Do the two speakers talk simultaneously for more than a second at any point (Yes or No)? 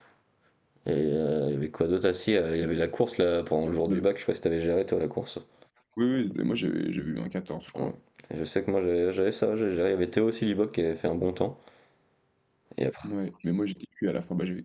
No